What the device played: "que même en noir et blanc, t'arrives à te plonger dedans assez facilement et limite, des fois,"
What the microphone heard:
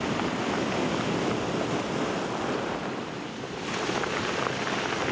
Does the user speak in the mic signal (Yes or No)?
No